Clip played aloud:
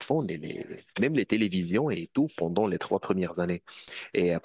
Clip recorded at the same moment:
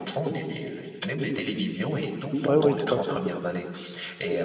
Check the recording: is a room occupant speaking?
Yes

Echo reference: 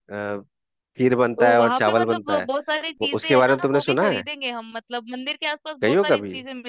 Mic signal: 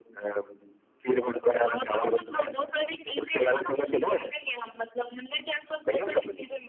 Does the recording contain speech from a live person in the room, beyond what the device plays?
No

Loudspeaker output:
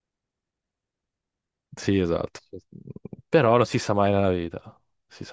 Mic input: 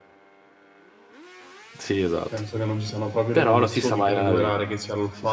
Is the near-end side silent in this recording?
No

